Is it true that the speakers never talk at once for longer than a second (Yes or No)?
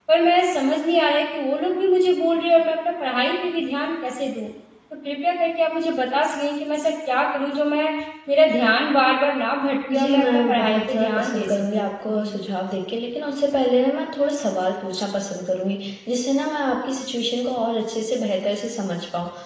No